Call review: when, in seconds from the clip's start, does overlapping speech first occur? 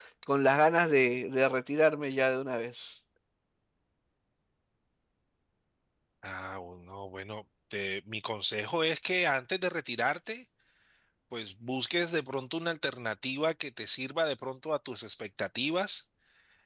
none

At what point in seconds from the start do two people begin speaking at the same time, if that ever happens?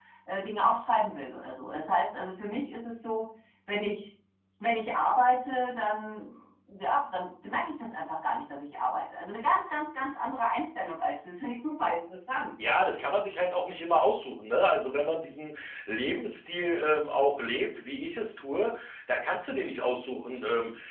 none

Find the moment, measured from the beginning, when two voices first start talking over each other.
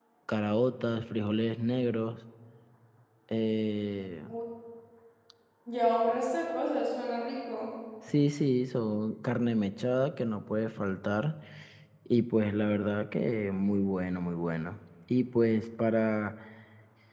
none

